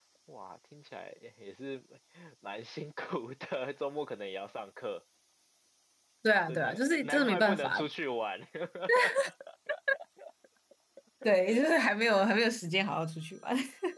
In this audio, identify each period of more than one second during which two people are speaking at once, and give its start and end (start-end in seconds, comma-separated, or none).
6.5-7.8